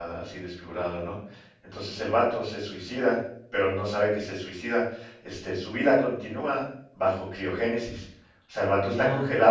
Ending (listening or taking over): listening